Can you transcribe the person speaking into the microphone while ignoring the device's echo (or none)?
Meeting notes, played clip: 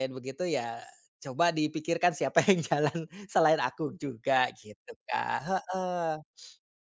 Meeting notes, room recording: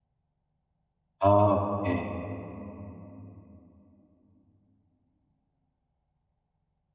Oke,